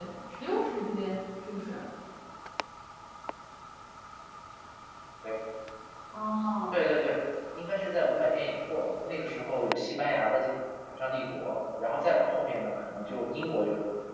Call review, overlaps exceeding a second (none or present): none